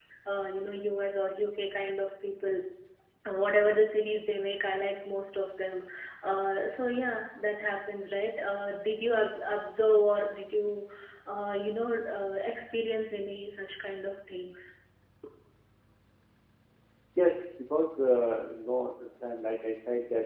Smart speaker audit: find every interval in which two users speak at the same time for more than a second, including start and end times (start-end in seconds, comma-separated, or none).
none